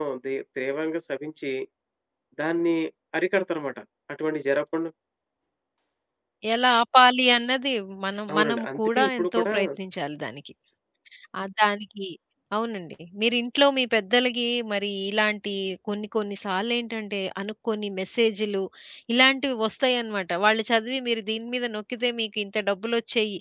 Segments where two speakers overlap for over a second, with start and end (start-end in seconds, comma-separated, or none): 8.3-9.5